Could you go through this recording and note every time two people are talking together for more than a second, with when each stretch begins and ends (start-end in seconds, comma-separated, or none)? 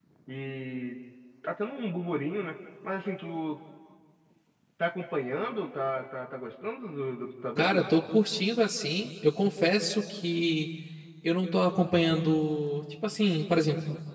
none